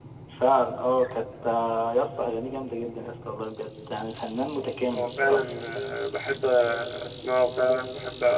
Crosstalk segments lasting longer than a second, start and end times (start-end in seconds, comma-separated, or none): none